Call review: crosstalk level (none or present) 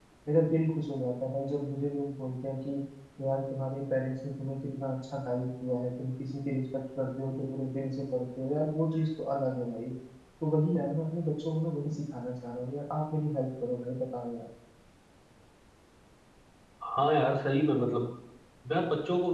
none